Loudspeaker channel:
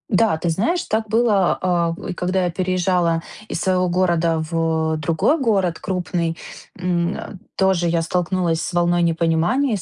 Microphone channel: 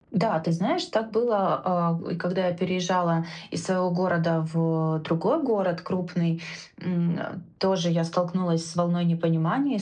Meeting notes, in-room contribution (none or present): none